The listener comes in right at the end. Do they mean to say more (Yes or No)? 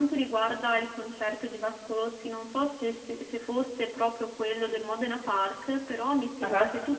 No